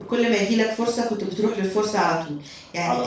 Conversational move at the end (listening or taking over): listening